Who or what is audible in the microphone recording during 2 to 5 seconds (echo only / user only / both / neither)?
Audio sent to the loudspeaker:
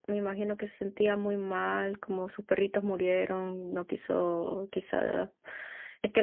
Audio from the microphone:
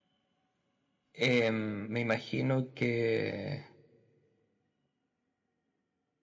user only